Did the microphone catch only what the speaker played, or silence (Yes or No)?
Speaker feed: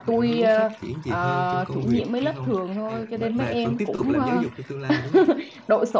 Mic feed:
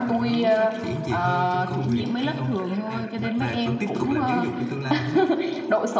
Yes